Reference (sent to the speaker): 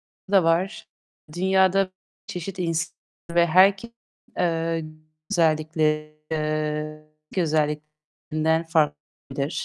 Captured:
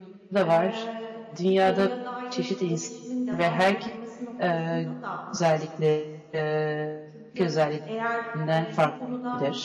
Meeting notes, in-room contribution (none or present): present